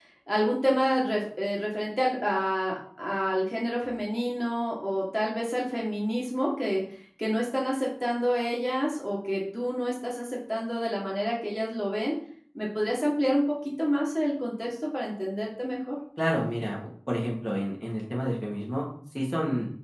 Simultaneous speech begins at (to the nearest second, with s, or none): none